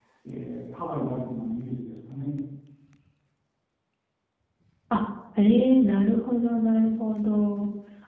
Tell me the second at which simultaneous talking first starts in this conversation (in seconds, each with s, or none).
none